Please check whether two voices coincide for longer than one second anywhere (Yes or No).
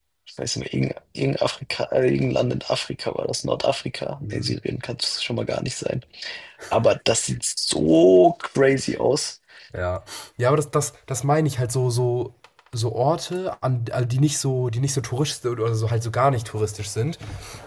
No